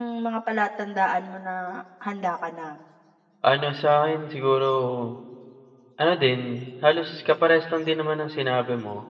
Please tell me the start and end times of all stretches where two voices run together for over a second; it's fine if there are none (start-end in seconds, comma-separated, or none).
none